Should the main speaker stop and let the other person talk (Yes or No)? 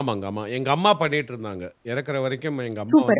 Yes